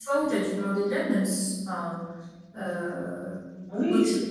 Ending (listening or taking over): taking over